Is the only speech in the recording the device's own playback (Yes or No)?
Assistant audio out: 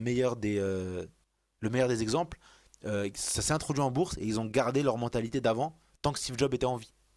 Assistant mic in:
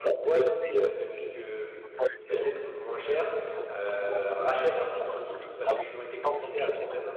No